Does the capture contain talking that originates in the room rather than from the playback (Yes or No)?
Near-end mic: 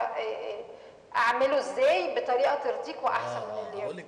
Yes